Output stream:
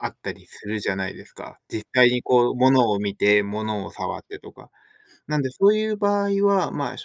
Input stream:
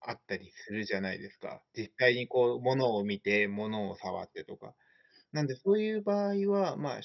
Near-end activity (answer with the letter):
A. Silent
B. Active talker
A